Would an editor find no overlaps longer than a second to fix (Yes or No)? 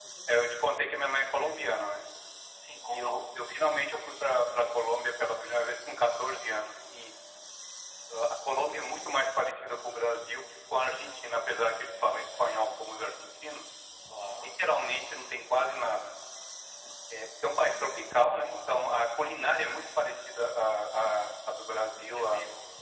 Yes